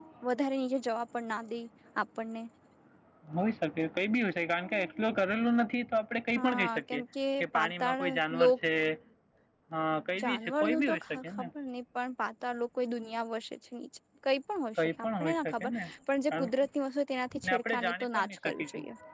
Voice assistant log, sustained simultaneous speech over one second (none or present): present